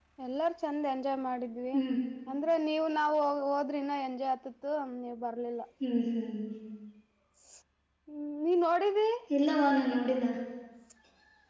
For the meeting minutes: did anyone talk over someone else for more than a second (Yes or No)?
No